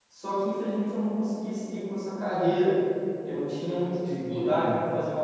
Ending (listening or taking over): listening